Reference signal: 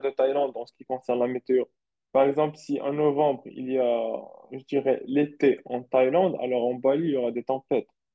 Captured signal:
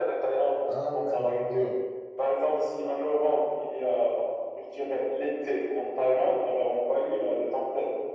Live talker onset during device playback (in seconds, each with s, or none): 0.7 s